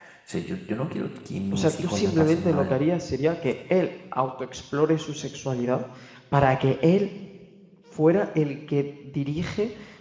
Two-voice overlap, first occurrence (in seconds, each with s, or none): 1.5 s